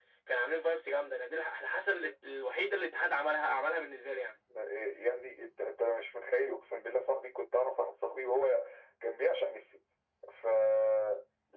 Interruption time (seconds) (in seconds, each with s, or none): none